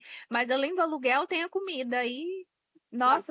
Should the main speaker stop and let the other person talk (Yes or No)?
No